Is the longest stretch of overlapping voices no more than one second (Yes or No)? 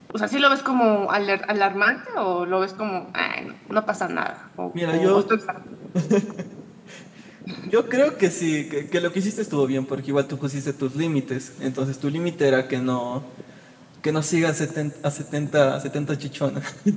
Yes